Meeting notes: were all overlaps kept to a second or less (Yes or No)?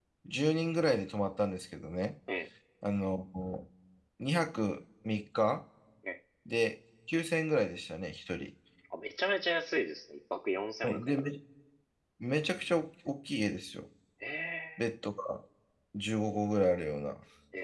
Yes